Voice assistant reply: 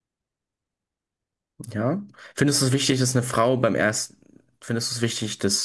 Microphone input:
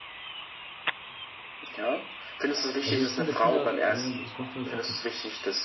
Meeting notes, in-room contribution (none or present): present